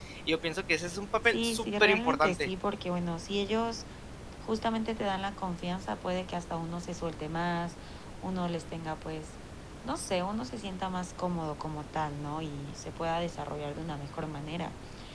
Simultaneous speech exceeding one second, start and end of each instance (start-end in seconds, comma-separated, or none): 1.3-2.5